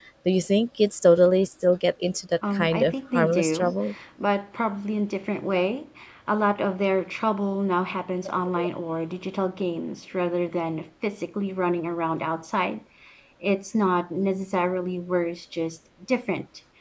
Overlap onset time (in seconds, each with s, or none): 2.4 s